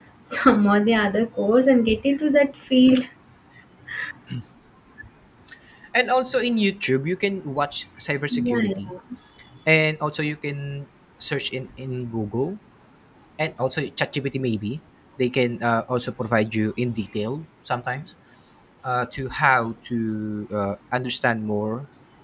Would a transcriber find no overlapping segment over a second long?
Yes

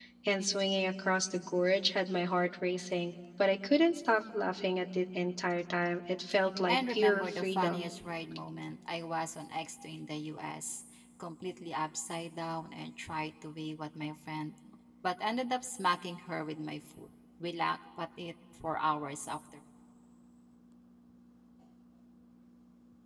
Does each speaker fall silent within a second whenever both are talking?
No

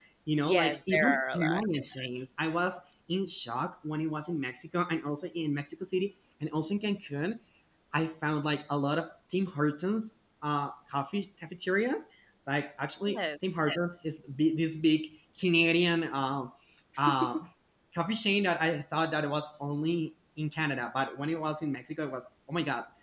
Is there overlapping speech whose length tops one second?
Yes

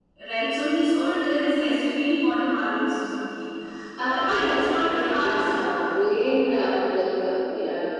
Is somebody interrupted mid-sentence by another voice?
Yes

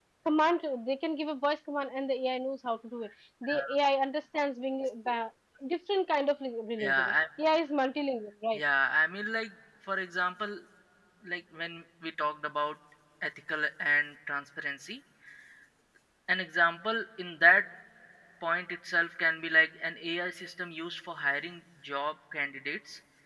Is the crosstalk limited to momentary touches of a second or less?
Yes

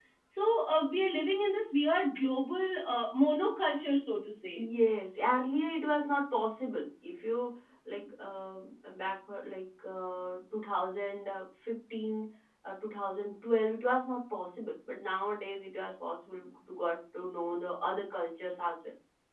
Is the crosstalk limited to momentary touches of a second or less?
Yes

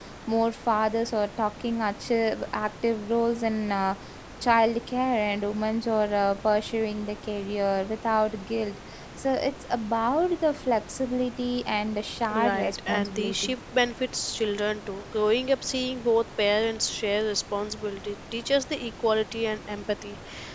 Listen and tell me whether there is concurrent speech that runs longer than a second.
Yes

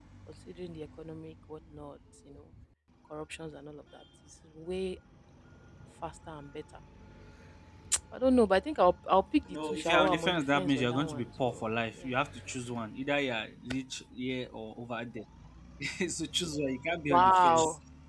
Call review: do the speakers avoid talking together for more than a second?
No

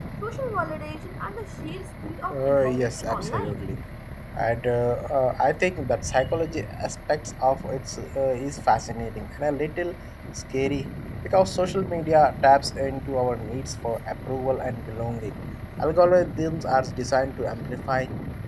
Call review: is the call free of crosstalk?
No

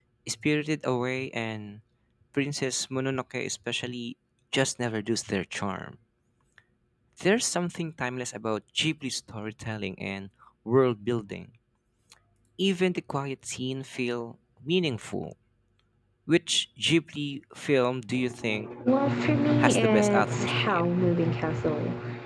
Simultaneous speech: Yes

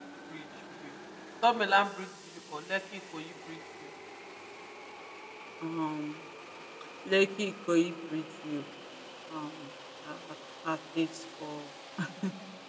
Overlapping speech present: No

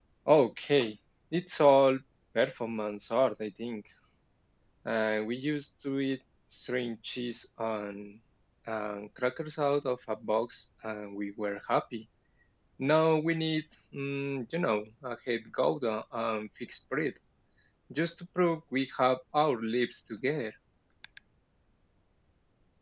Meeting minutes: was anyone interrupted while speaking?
No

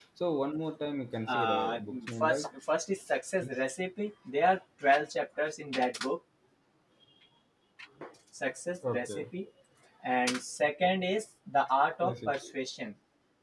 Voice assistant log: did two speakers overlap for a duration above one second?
Yes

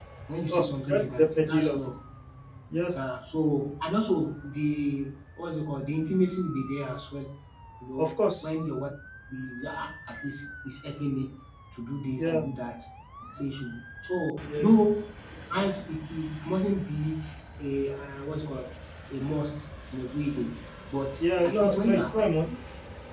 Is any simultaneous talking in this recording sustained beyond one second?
Yes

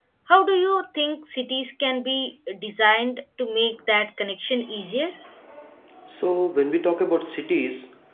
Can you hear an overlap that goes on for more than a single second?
No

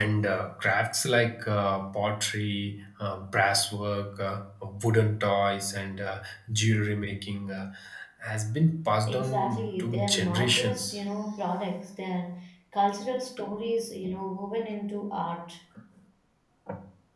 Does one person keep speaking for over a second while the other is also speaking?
Yes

